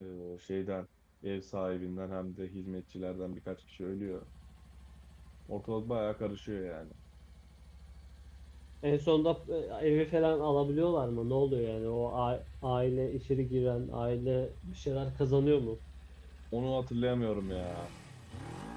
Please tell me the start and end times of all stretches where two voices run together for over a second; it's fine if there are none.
none

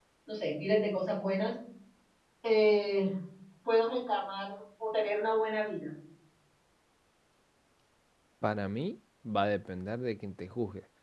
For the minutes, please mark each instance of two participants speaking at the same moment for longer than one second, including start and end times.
none

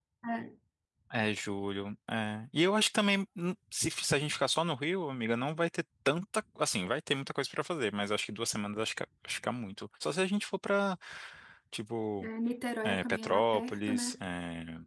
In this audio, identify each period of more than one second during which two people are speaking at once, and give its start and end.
12.8-14.2

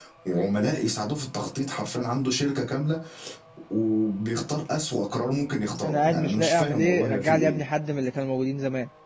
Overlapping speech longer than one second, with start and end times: 5.8-7.6

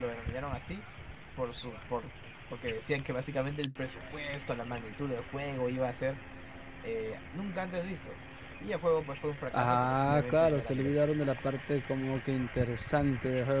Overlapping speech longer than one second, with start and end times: 9.5-11.1

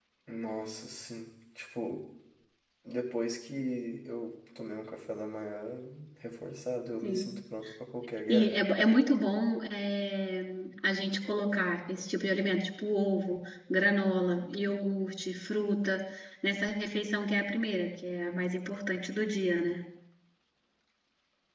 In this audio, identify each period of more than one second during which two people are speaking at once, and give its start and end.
none

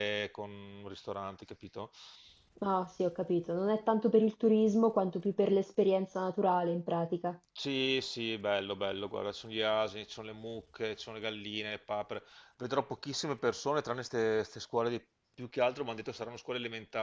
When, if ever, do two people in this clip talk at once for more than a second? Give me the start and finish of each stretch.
none

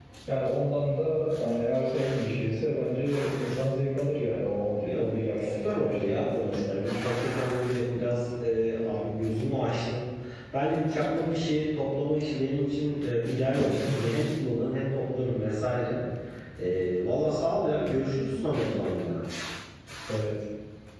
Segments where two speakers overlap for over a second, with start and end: 5.4-6.8

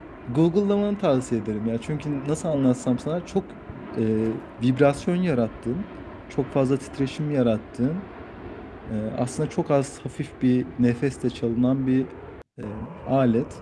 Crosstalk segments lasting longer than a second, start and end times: none

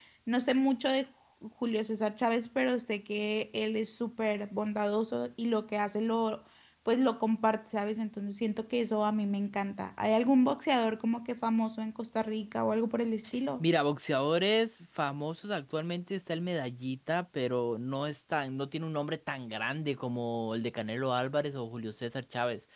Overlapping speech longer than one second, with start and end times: none

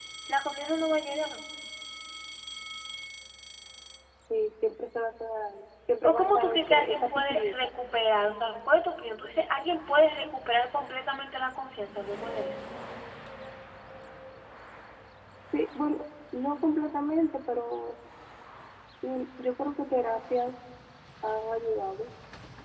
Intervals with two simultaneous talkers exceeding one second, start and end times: 6.0-7.7

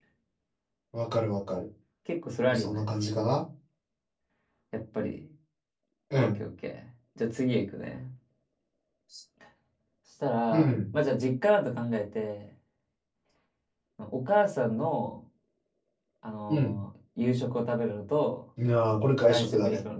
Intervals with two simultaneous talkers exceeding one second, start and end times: none

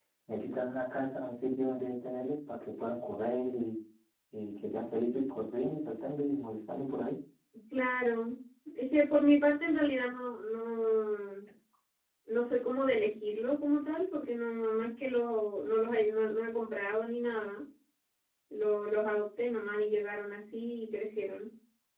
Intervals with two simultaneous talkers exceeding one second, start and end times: none

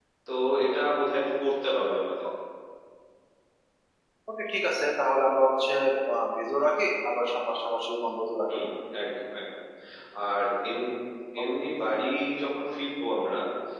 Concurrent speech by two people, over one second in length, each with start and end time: none

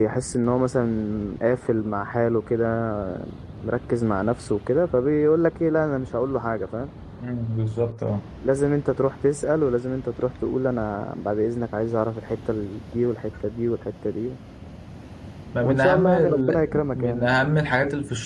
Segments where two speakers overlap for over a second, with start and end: 15.6-17.3

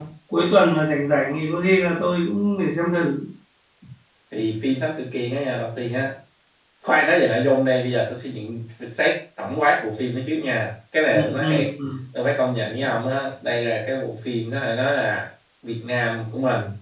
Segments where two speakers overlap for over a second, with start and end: none

